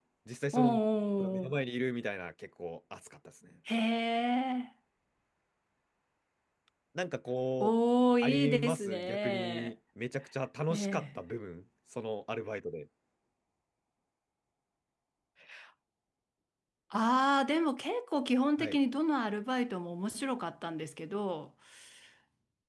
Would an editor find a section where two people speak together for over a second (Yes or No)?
Yes